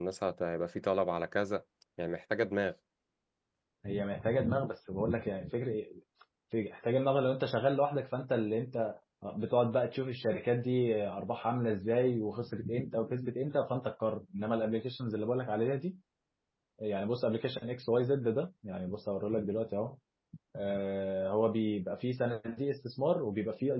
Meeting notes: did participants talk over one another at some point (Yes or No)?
No